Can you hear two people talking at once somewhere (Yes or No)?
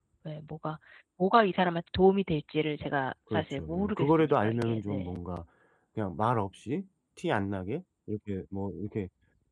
Yes